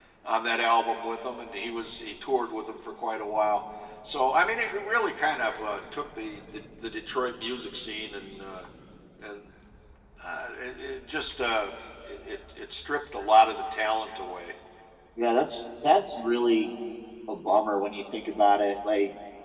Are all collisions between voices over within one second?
Yes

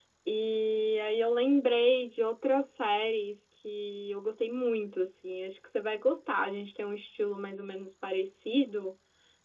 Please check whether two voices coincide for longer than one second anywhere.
No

